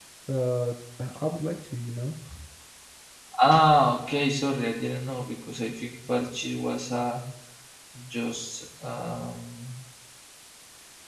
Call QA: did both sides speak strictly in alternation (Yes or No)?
Yes